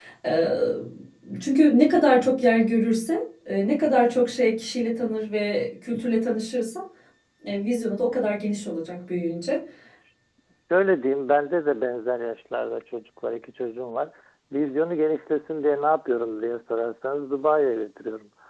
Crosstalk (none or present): none